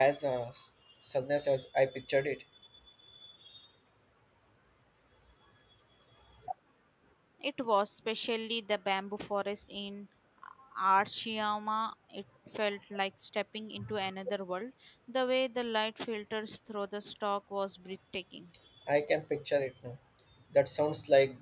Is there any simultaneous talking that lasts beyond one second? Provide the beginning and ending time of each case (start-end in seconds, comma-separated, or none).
none